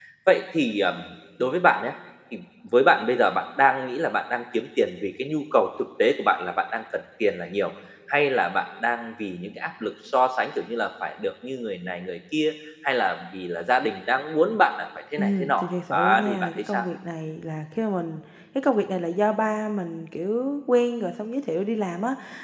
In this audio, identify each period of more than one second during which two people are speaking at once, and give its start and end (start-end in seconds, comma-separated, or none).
15.2-16.9